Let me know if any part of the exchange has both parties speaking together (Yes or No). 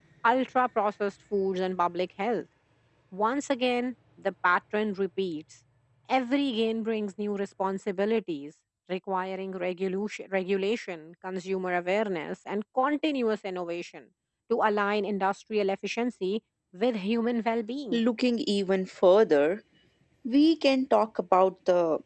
No